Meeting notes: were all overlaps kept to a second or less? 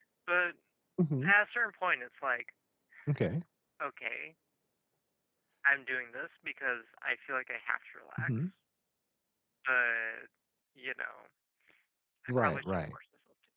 Yes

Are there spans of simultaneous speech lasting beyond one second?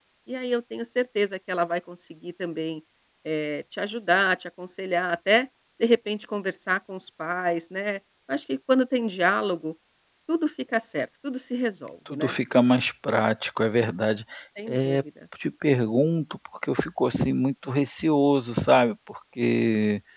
No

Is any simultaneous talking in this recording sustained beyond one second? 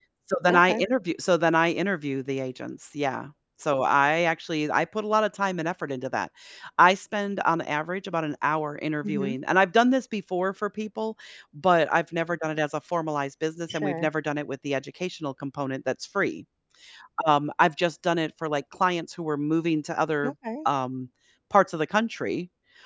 No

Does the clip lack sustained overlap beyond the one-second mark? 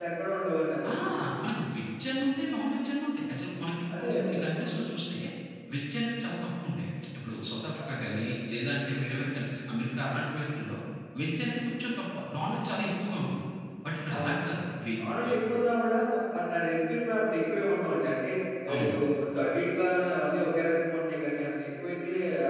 Yes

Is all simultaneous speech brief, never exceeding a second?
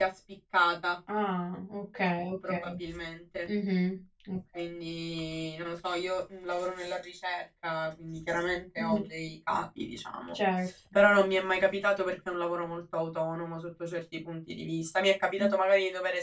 Yes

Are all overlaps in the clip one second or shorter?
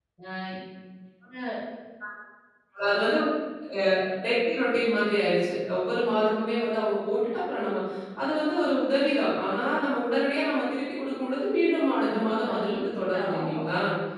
No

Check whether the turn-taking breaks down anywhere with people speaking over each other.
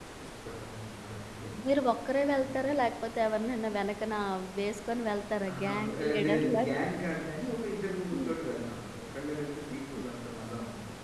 Yes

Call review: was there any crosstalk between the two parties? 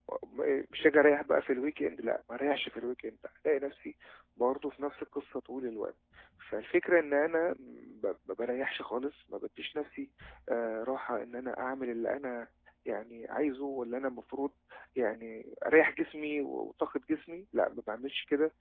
No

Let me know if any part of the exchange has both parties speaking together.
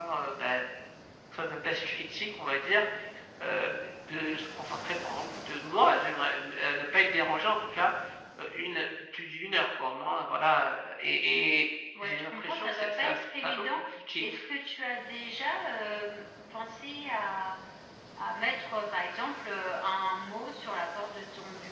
Yes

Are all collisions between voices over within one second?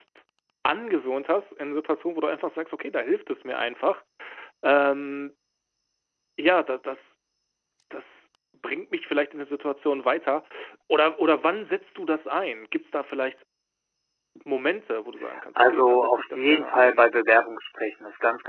No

